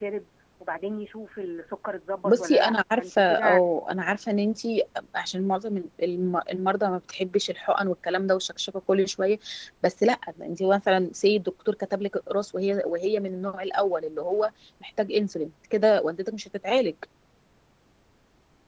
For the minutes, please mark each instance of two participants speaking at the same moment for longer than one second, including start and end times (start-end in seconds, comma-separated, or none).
2.2-3.6